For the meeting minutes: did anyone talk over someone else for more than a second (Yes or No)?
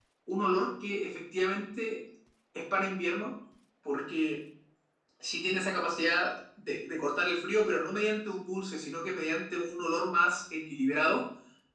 No